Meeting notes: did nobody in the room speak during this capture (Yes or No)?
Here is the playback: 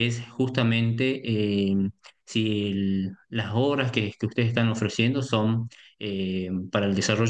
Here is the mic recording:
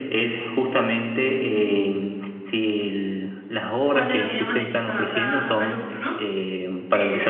No